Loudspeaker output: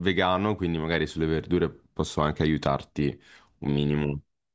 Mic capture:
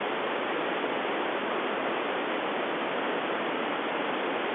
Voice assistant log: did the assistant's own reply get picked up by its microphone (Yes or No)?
No